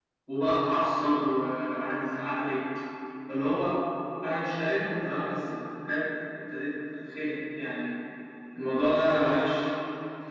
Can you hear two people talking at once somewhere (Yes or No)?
No